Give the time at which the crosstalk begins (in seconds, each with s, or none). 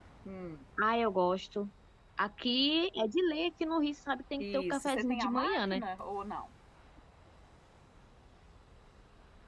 4.4 s